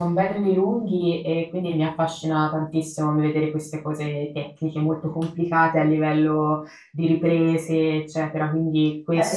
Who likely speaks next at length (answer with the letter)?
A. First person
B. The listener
B